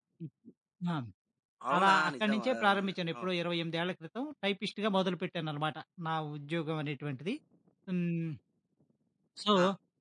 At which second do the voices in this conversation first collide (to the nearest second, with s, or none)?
2 s